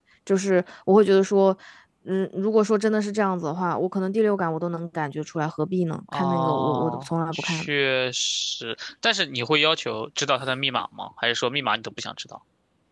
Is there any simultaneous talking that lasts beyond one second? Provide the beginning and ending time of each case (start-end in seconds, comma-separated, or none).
6.1-7.7